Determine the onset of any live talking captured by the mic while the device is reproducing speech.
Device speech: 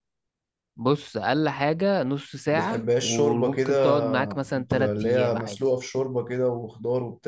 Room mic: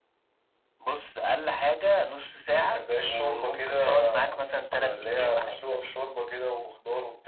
none

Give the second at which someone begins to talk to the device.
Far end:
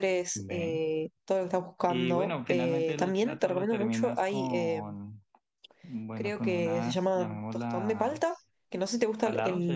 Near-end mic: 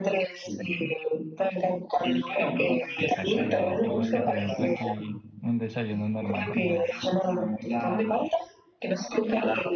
3 s

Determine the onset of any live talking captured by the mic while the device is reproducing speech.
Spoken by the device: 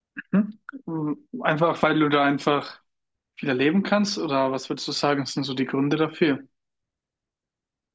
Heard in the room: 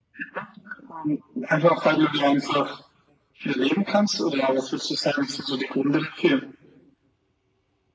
none

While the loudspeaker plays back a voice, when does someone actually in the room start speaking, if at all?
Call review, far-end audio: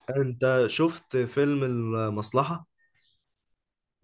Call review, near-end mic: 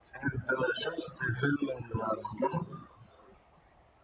none

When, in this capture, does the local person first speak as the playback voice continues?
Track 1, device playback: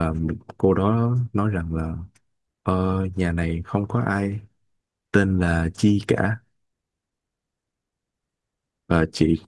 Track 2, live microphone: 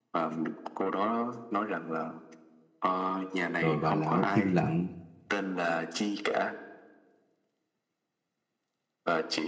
4 s

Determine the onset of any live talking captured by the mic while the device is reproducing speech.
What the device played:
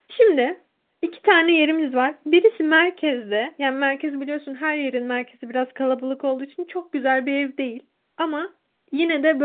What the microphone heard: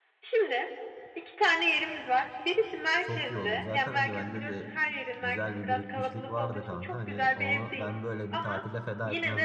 3 s

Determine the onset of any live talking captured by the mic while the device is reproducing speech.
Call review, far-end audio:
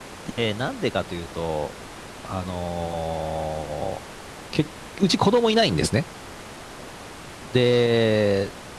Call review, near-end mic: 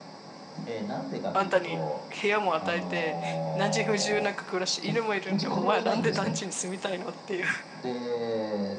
1 s

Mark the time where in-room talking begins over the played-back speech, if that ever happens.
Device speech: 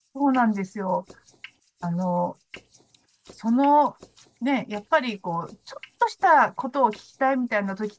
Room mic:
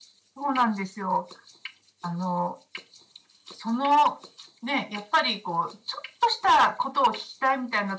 none

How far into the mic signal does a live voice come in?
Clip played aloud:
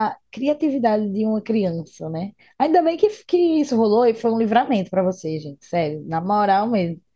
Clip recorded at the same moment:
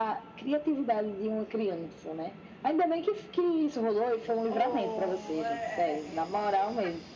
4 s

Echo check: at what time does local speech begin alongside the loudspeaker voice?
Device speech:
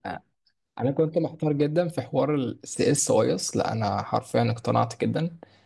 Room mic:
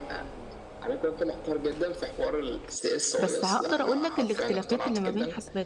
3 s

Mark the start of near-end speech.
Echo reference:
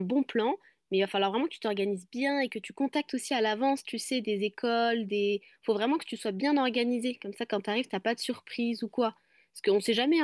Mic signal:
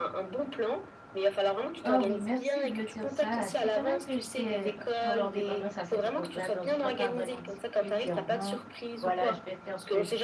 2 s

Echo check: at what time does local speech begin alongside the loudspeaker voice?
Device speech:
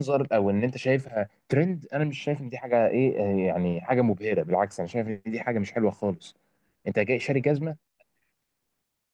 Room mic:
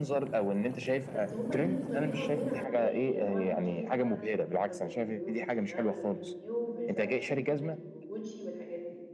1 s

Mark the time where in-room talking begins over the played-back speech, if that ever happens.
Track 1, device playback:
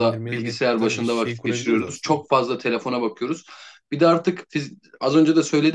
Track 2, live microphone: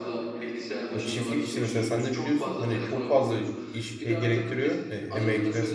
1 s

